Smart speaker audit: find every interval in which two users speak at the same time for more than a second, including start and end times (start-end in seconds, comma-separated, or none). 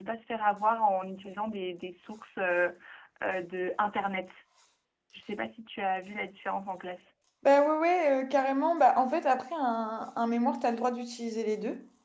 none